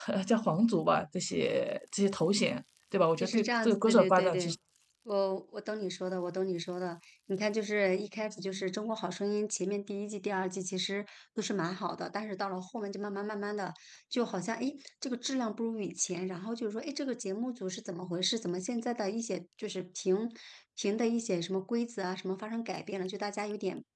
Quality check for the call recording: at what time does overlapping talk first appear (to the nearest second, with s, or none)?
3 s